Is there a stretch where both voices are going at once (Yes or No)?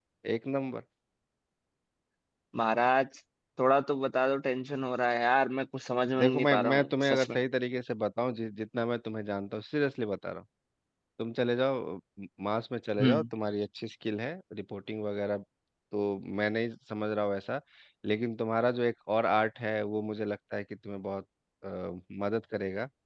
Yes